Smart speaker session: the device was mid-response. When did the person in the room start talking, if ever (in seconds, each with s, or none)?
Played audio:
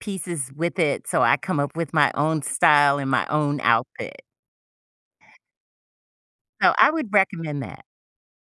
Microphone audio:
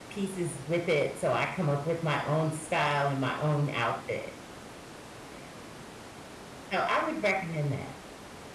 none